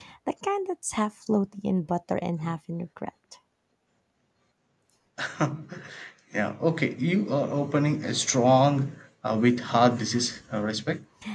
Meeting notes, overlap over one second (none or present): none